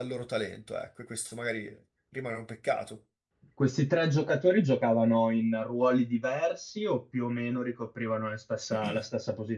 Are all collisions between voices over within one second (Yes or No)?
Yes